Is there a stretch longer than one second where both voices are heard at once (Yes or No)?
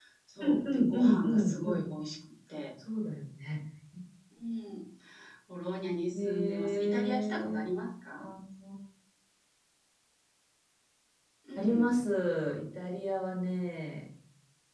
Yes